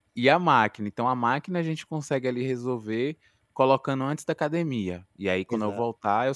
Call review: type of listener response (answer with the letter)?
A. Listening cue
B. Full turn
A